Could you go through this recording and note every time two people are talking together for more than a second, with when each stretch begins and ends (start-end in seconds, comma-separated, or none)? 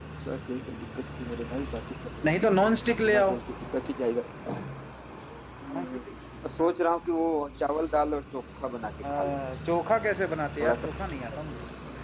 none